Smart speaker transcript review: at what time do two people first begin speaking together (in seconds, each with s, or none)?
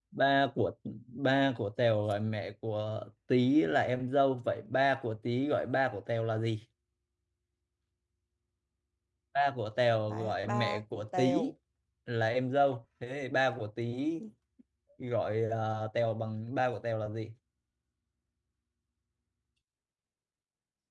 10.1 s